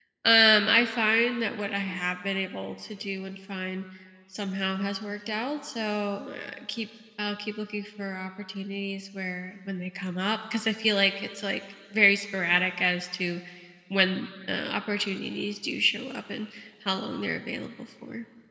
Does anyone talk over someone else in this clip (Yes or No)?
No